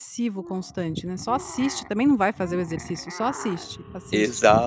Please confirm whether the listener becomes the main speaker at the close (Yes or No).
Yes